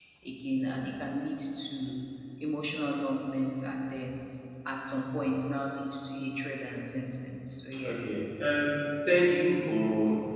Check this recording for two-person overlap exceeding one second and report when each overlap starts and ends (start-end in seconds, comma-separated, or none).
none